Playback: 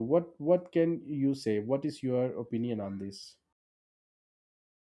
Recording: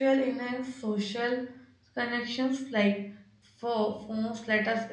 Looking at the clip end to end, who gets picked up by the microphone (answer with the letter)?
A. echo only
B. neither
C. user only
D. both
C